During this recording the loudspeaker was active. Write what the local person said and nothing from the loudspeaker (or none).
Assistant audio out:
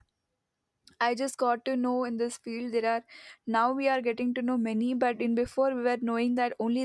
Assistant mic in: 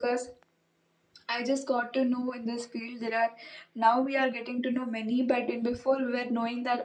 none